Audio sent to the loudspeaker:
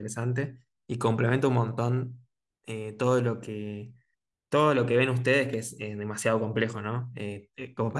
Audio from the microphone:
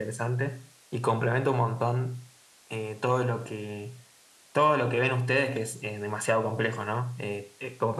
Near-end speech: none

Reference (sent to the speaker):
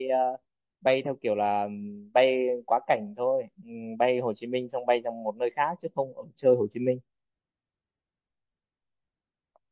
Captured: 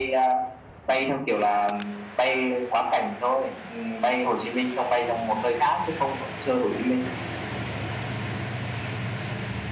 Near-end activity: none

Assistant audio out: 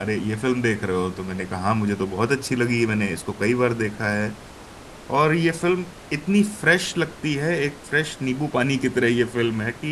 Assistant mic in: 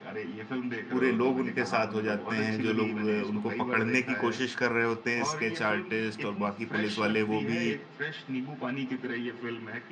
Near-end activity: present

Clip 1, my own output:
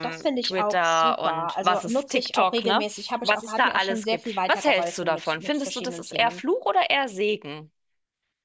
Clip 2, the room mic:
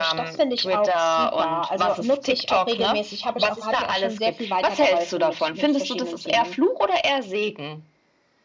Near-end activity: none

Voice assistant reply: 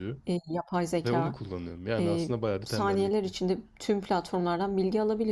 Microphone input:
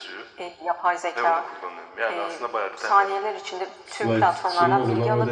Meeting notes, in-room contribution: present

